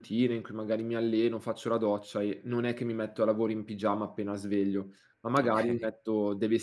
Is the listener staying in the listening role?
Yes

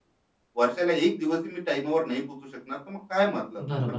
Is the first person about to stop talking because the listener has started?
Yes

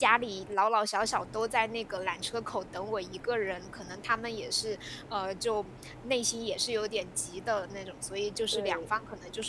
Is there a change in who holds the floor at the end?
No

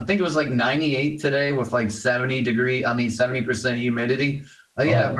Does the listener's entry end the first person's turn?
No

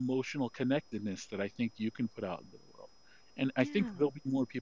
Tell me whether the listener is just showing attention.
Yes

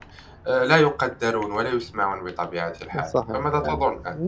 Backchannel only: No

